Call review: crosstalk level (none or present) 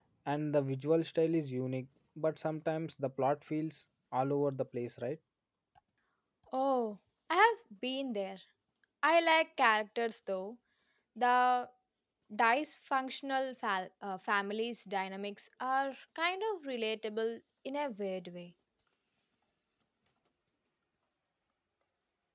none